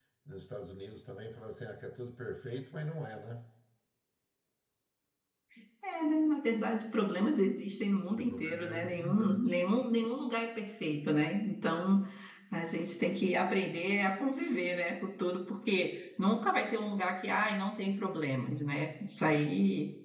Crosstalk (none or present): present